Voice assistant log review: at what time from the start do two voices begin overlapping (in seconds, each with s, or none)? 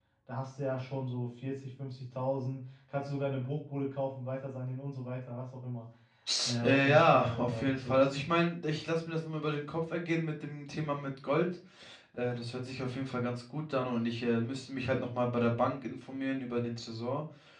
6.6 s